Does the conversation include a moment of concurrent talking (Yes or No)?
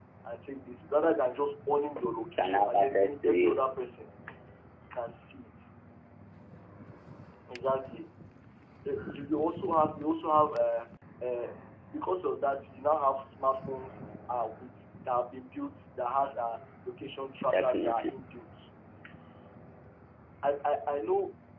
Yes